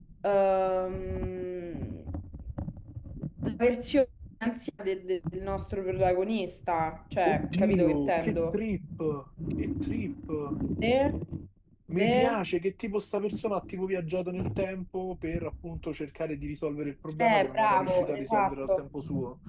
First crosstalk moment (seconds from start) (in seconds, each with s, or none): 7.3 s